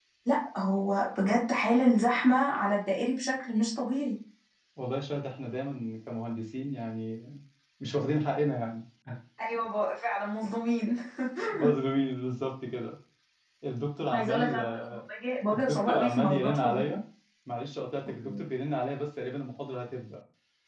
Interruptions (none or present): present